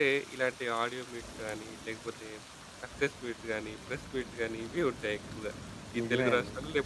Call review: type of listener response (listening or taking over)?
listening